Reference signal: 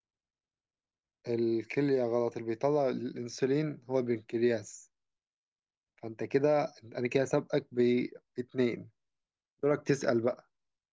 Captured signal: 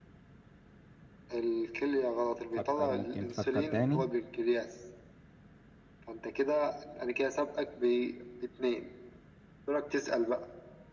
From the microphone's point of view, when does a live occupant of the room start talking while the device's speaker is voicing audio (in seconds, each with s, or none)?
2.5 s